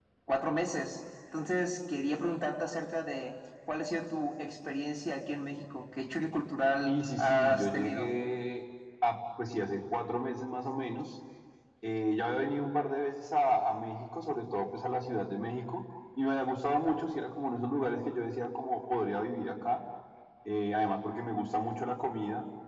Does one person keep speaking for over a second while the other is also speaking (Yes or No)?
Yes